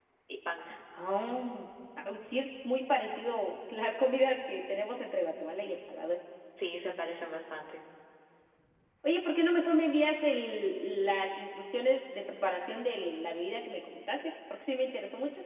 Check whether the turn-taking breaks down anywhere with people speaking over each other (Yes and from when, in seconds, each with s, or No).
No